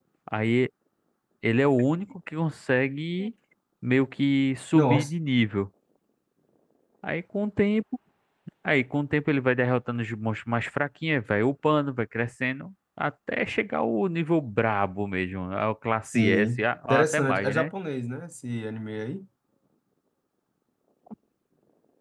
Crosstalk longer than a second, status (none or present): present